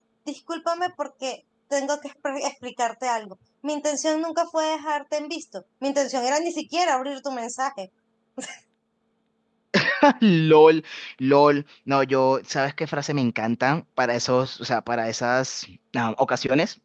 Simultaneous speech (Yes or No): No